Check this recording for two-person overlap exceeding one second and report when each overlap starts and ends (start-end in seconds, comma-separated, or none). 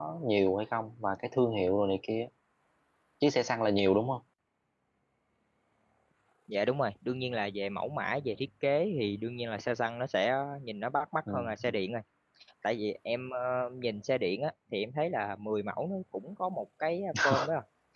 none